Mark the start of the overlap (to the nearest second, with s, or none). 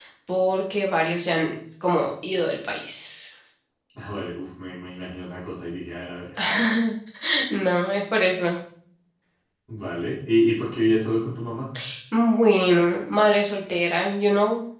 none